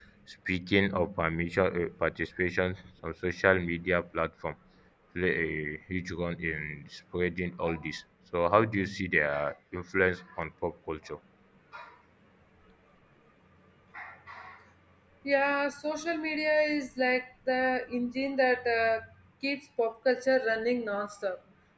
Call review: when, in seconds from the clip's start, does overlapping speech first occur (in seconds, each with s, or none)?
none